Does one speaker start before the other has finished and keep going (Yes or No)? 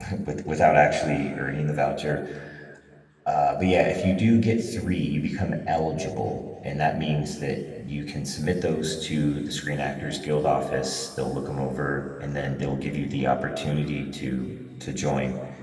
No